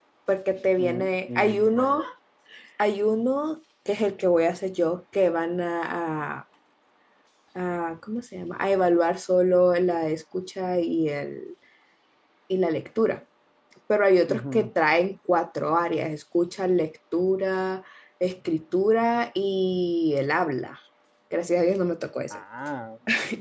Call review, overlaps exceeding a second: present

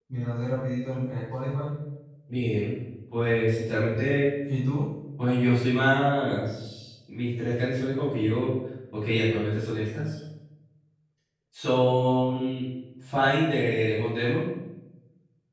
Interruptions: none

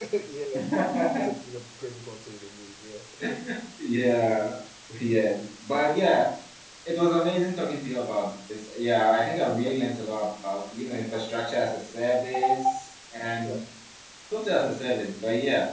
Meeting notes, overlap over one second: none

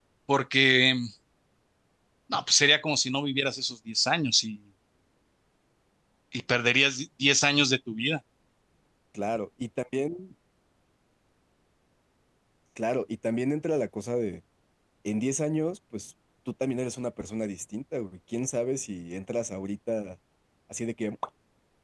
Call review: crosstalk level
none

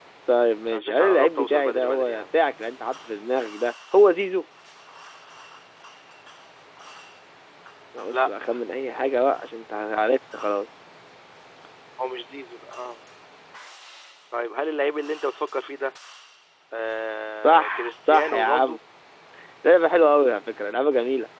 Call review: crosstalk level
present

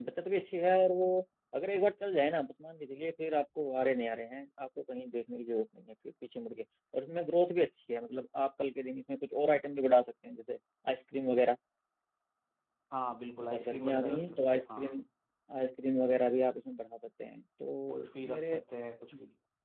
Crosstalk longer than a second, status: present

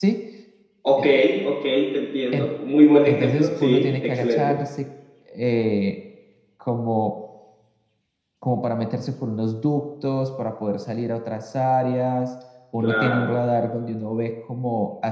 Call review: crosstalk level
present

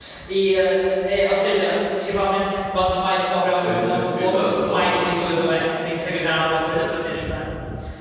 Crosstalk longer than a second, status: present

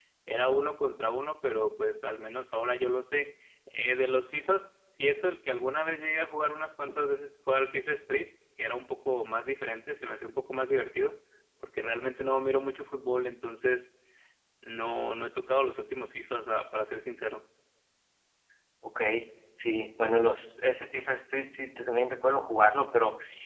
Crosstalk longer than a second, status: none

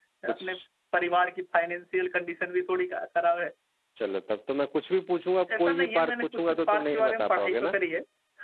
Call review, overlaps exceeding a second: present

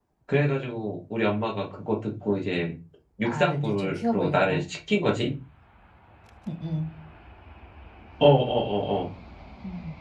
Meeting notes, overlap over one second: present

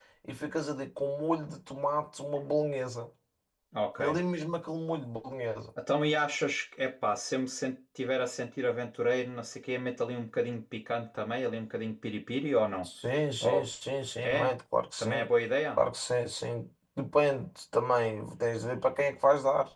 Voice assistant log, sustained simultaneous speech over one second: none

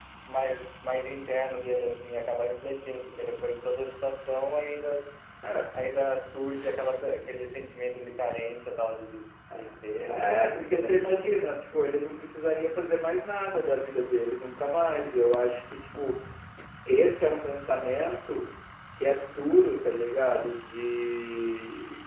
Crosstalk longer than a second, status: present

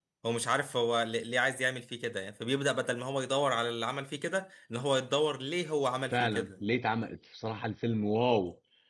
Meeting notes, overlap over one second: none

